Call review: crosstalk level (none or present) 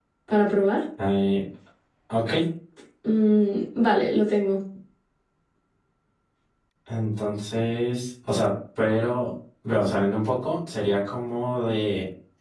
none